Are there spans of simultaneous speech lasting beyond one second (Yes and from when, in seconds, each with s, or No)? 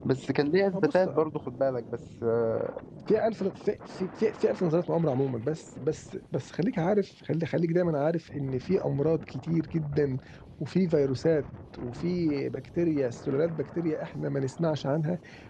No